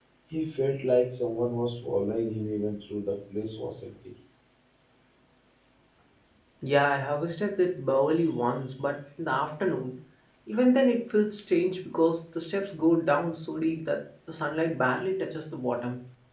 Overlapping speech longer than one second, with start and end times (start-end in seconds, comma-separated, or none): none